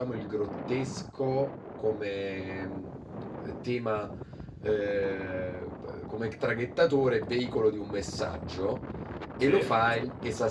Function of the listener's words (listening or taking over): listening